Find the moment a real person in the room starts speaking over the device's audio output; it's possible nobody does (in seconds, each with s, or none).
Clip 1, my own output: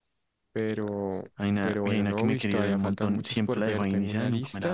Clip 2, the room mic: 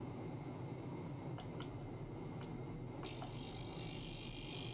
none